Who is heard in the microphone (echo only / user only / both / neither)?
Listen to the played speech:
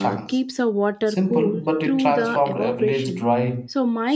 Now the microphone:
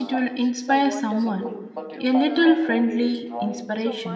both